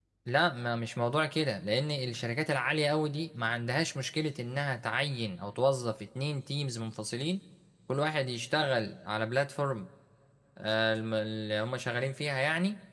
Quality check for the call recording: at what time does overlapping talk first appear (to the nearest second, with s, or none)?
none